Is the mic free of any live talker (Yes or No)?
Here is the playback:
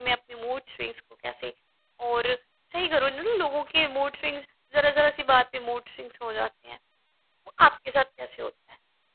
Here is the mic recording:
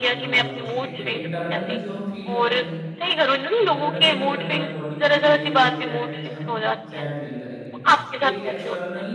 No